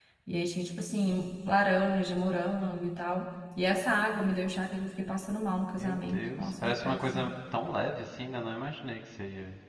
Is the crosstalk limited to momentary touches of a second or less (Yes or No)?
No